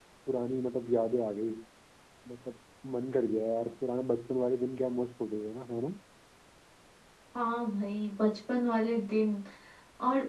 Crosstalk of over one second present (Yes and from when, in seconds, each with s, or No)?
No